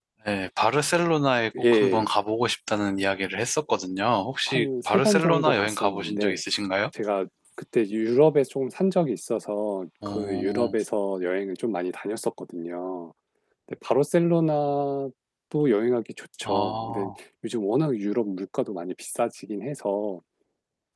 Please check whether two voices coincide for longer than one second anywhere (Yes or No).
Yes